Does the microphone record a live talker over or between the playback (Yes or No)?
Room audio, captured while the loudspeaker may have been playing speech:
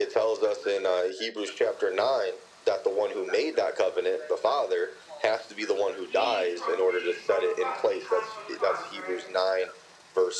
Yes